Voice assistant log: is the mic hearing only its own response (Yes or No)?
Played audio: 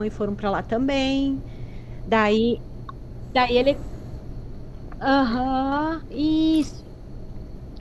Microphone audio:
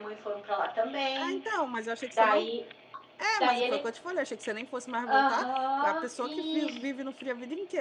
No